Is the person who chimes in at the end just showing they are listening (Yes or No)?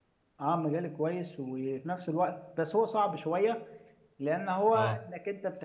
Yes